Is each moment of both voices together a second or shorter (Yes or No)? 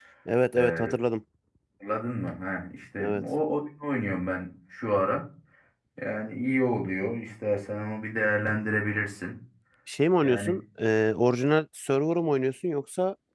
Yes